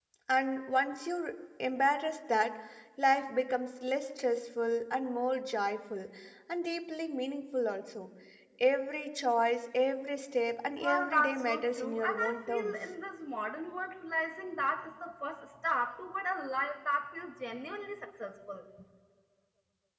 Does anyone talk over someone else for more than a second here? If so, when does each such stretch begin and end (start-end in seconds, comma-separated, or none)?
10.8-12.7